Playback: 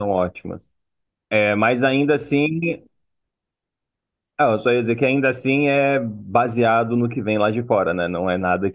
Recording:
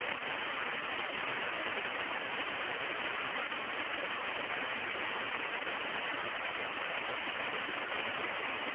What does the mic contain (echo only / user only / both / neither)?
neither